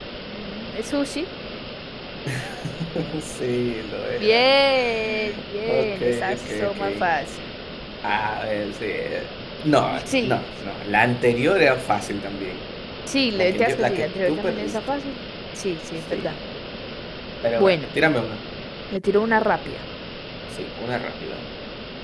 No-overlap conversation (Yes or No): No